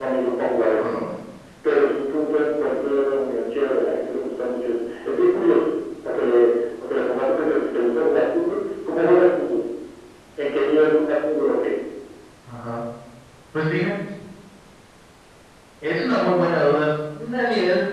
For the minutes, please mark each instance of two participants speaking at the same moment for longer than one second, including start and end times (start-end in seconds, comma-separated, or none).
none